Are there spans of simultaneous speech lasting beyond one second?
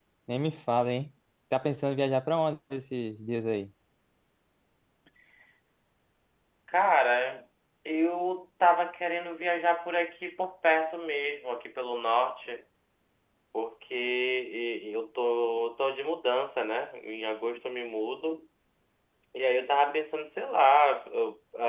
No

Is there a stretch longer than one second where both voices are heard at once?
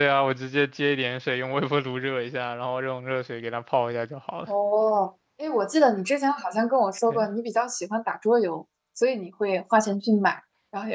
No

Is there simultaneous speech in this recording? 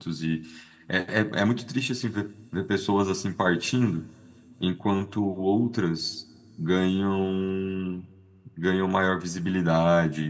No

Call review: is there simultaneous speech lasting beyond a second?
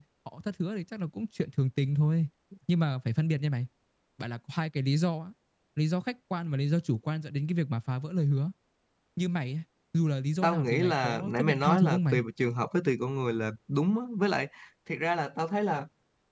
Yes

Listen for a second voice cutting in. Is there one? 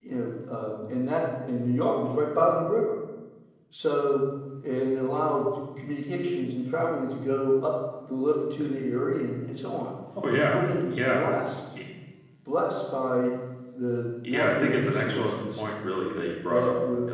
Yes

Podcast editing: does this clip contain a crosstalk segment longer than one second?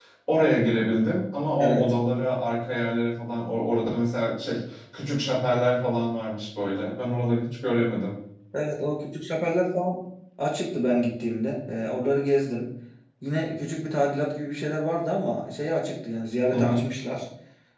No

